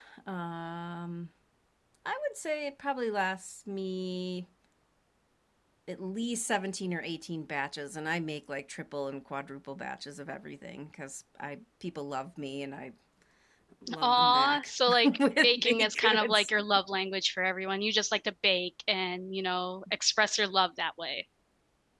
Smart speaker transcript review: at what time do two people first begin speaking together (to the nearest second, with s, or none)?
14 s